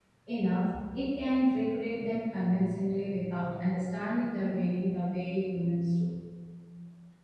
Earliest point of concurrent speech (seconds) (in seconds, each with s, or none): none